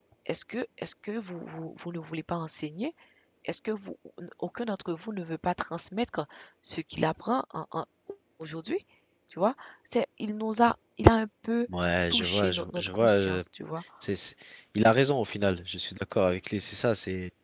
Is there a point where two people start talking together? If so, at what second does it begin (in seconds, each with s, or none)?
12.1 s